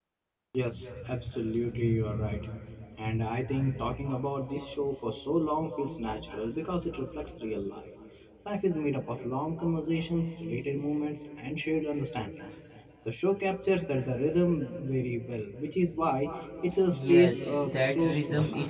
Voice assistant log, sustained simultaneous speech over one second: present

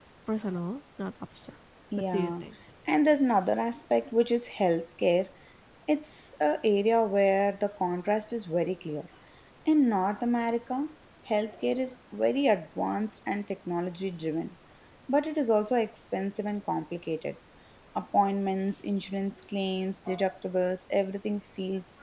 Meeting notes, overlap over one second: none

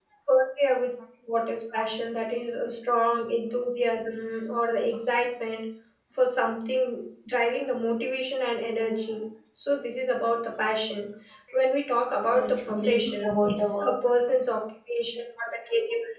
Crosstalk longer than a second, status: present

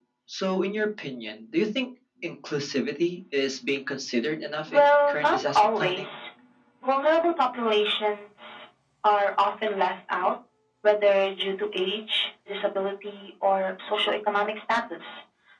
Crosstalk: present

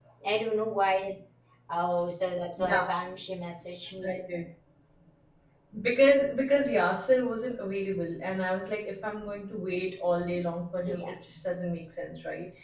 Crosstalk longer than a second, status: none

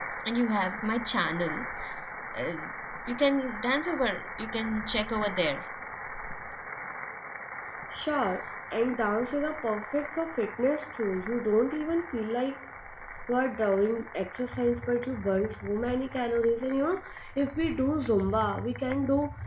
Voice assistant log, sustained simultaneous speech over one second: none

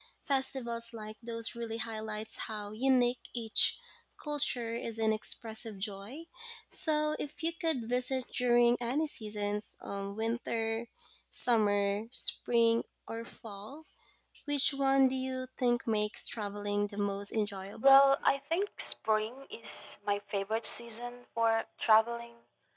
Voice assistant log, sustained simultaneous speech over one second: none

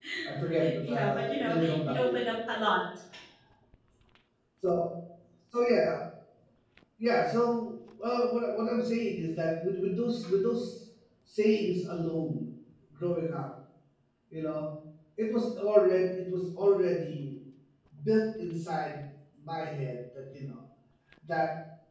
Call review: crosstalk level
present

